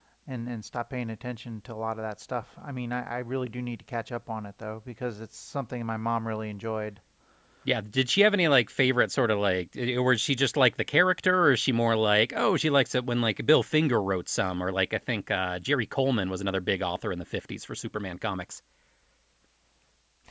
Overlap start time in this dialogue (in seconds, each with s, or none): none